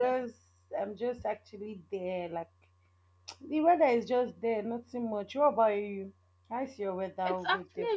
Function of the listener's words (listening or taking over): taking over